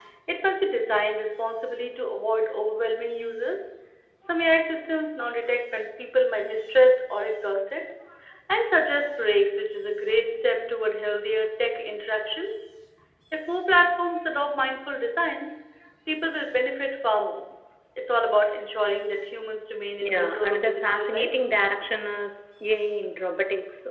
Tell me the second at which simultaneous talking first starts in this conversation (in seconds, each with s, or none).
20.0 s